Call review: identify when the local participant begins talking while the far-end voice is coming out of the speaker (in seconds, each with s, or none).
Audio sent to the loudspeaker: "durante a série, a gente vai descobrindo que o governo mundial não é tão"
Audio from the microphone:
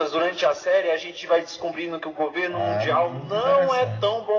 2.5 s